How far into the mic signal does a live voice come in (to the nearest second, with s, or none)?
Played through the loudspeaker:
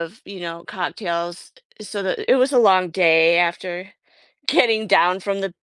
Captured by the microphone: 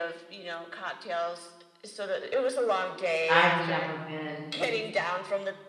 3 s